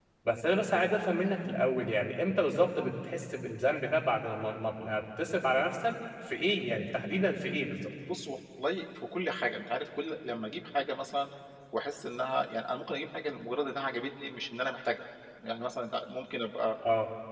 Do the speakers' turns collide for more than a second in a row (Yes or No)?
No